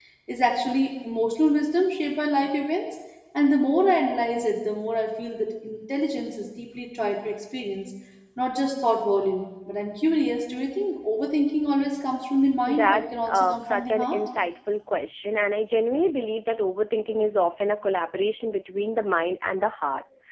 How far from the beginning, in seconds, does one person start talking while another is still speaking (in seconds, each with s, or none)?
12.7 s